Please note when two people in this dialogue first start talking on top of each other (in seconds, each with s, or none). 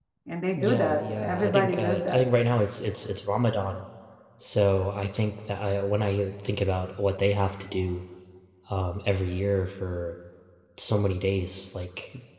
0.6 s